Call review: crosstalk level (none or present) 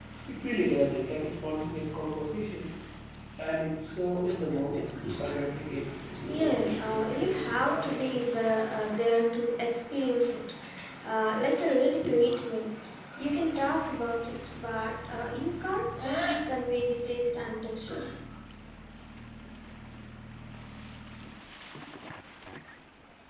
present